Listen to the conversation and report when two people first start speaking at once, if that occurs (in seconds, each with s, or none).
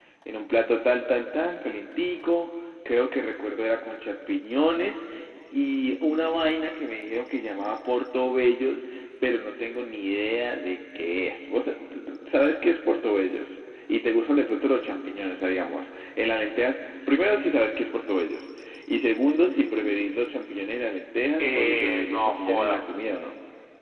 21.4 s